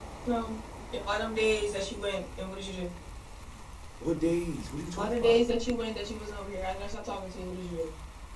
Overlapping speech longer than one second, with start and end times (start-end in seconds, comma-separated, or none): none